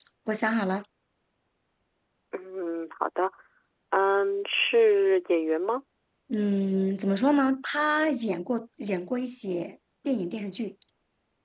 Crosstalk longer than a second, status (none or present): none